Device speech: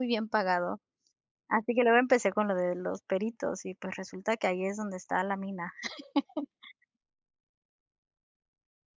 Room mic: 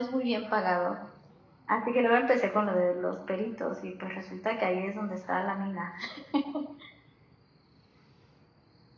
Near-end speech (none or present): none